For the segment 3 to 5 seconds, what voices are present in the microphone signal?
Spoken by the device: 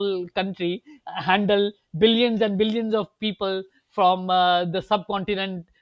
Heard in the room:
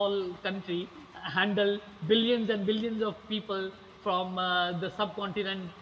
echo only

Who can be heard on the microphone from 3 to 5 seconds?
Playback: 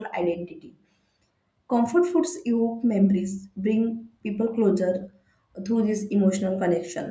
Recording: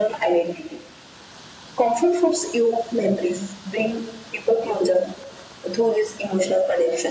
echo only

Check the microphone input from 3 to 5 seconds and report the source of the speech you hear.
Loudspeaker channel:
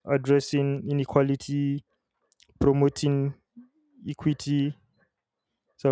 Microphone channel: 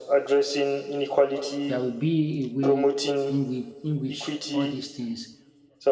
both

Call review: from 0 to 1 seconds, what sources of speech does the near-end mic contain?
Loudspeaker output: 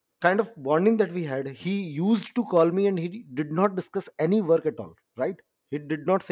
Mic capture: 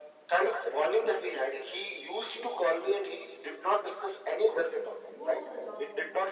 echo only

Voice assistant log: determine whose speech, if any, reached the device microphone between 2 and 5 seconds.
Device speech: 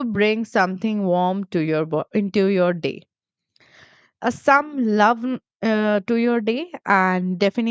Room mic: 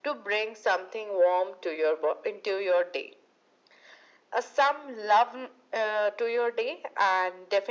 echo only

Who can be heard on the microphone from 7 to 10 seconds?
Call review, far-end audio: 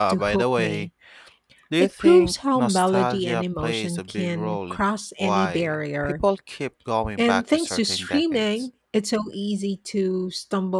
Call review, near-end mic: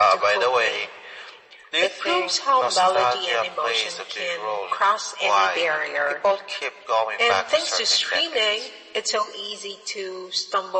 echo only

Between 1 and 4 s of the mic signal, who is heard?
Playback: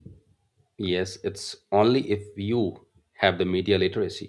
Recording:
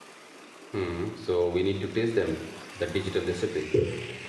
user only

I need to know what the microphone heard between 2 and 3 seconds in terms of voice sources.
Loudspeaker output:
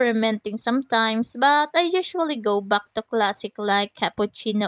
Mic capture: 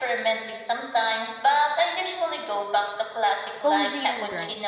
echo only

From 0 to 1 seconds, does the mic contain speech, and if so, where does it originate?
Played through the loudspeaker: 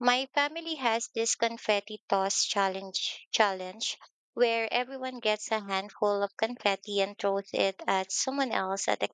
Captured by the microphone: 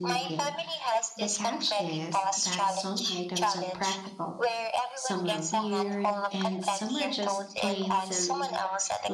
both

